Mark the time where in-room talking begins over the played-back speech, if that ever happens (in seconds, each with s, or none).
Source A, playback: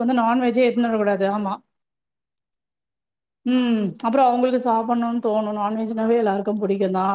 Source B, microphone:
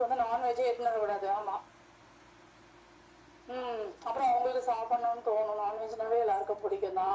none